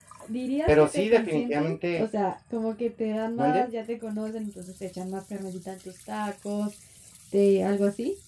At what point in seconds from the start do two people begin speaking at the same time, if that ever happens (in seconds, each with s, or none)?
0.7 s